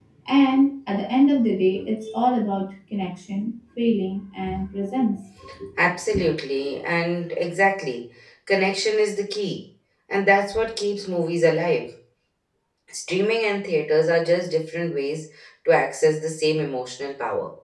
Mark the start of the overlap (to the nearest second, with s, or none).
none